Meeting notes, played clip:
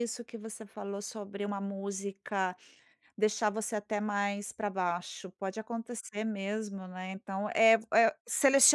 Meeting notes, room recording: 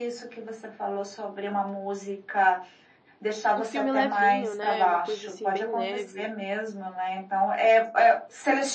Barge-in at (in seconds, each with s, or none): 3.5 s